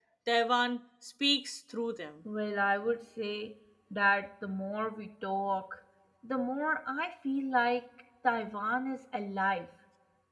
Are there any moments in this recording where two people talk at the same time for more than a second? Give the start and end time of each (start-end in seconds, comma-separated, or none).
none